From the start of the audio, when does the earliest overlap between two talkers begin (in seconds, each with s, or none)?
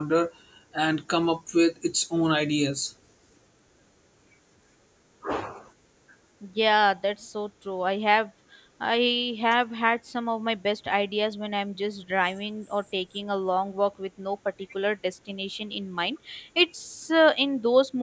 none